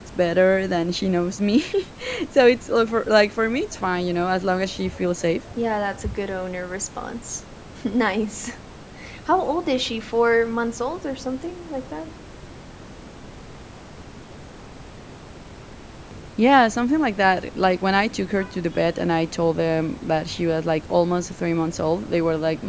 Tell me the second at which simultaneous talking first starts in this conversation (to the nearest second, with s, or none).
none